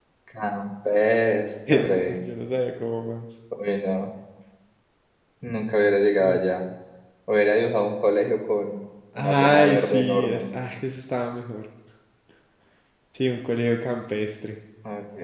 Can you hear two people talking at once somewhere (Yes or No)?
Yes